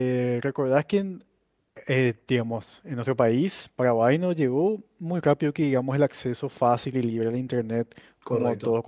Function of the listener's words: listening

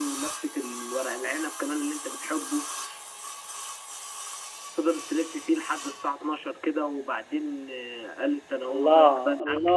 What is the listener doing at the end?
taking over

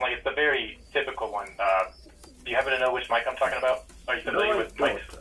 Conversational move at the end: taking over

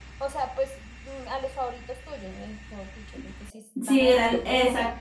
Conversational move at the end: taking over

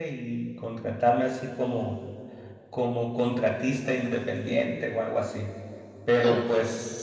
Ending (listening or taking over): listening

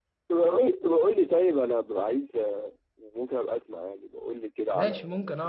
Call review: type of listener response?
taking over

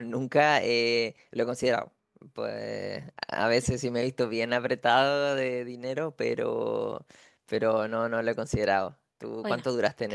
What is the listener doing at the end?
taking over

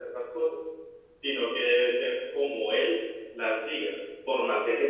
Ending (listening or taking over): listening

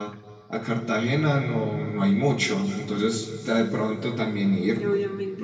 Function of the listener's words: taking over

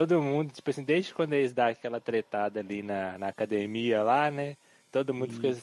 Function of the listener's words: listening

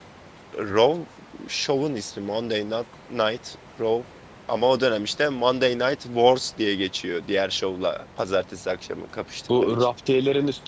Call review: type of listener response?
taking over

